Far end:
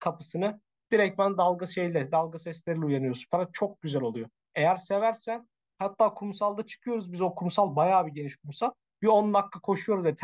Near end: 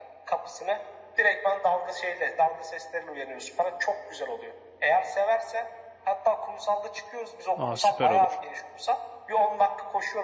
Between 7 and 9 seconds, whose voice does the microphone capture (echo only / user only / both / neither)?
both